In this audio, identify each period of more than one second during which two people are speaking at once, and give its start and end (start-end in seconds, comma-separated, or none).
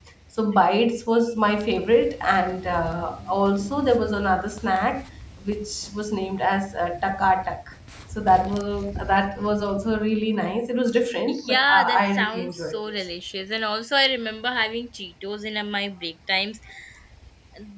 11.3-13.0